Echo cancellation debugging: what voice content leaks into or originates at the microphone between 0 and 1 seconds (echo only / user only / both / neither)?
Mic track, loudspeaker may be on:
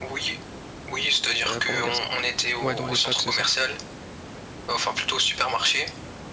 echo only